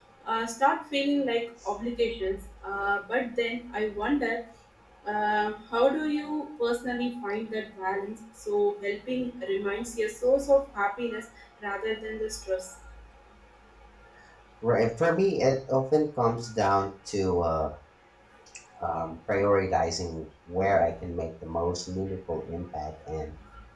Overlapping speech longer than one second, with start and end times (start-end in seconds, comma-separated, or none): none